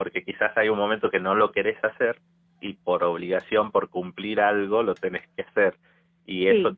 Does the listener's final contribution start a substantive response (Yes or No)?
No